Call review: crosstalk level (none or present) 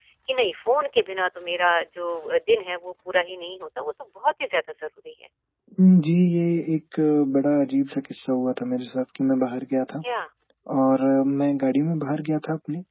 none